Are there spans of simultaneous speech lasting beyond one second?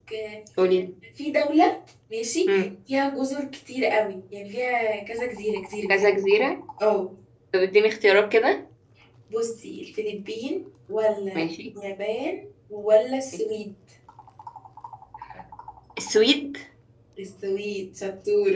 No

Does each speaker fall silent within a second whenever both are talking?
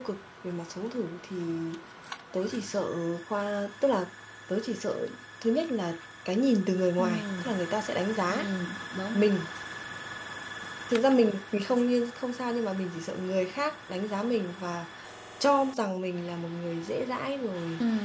Yes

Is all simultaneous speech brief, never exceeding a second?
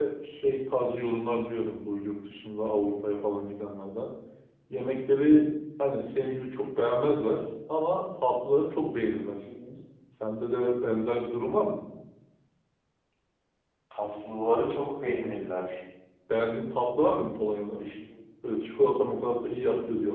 Yes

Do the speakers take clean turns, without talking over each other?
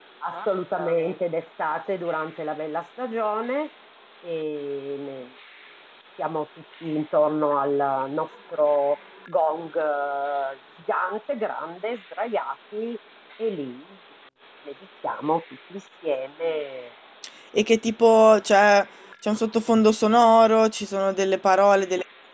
Yes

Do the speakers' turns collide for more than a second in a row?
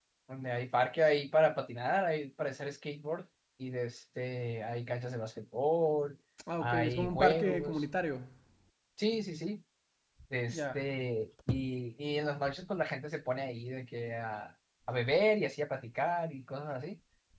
Yes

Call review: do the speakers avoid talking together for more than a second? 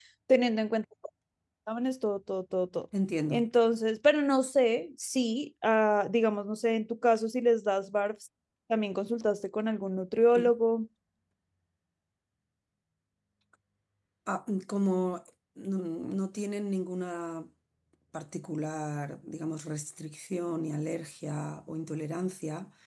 Yes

